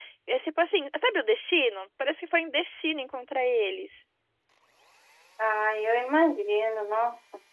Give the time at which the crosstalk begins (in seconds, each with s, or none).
none